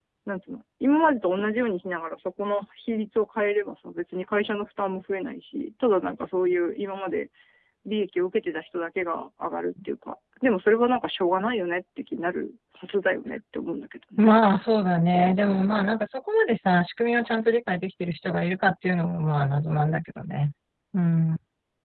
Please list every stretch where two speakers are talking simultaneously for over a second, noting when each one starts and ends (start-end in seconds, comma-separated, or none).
none